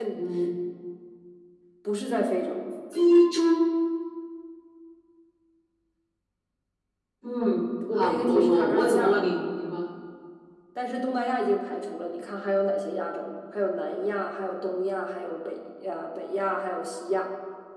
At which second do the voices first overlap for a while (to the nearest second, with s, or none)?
8 s